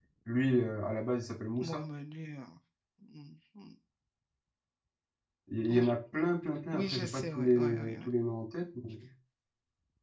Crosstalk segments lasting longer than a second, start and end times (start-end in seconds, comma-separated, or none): 6.7-8.1